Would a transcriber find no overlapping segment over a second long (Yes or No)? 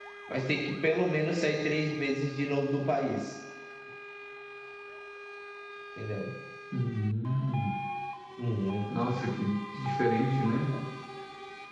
Yes